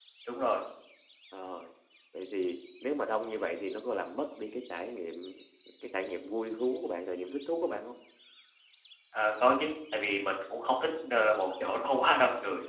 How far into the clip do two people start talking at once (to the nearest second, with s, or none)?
none